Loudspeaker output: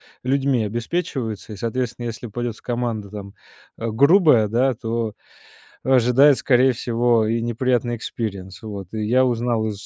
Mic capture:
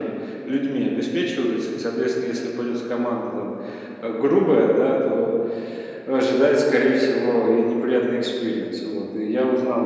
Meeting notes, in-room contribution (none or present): none